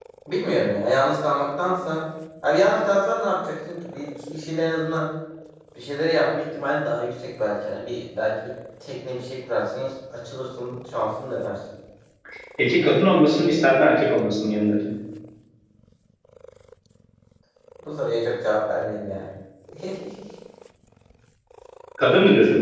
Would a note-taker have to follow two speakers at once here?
No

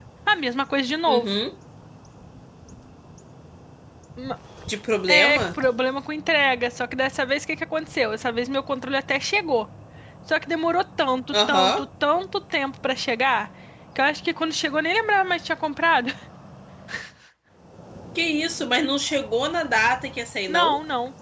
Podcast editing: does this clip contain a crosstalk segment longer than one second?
No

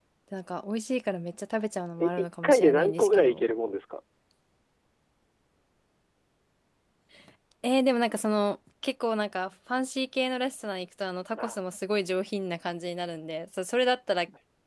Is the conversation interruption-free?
No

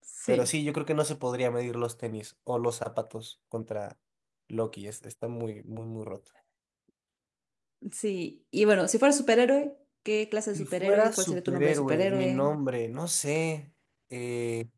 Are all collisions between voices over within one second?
No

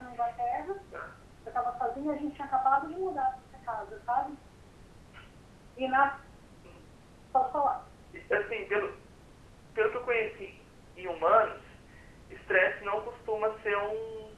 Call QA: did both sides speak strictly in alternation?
Yes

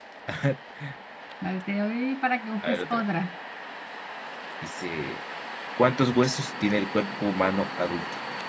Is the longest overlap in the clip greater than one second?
No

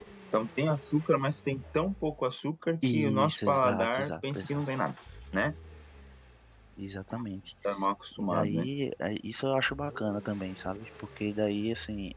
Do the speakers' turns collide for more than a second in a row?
Yes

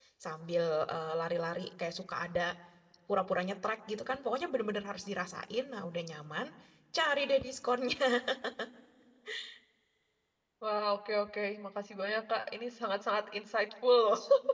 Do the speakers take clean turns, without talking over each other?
Yes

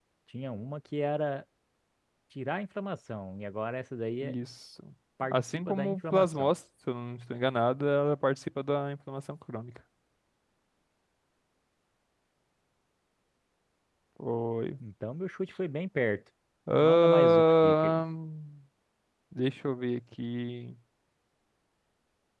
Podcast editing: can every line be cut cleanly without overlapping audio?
No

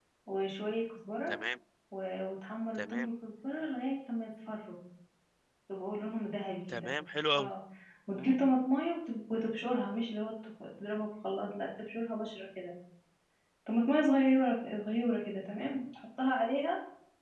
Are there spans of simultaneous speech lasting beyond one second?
No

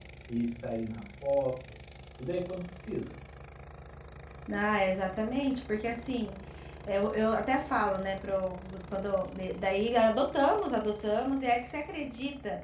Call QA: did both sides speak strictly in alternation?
Yes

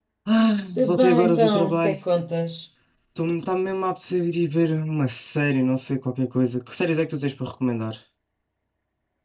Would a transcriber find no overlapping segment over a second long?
No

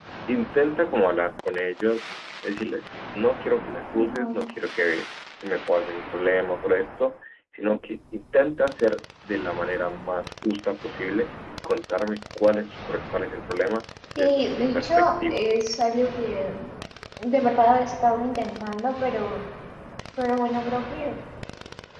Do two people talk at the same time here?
Yes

